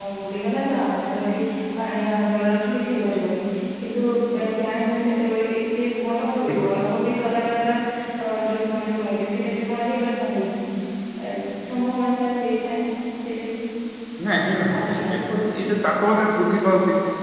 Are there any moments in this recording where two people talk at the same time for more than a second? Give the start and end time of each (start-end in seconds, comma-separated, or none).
none